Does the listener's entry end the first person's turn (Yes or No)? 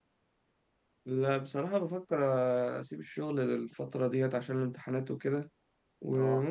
No